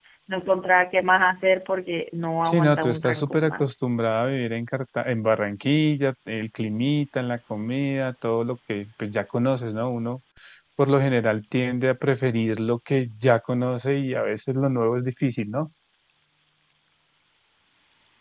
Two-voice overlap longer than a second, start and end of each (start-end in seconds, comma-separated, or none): 2.5-3.7